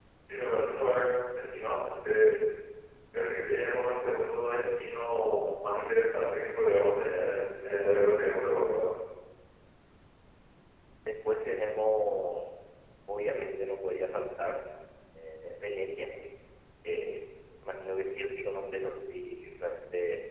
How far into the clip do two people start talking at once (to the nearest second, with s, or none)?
none